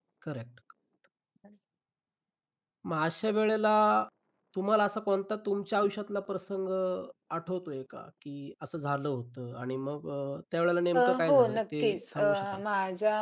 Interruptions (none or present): present